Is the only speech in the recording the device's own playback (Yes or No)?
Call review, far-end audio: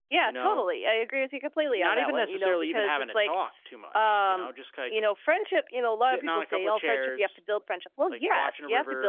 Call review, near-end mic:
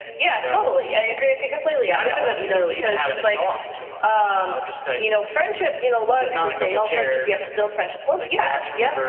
Yes